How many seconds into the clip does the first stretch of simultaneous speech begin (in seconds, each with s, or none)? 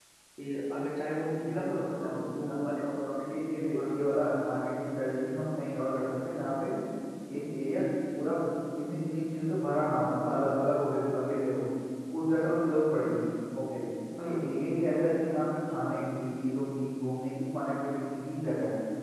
1.5 s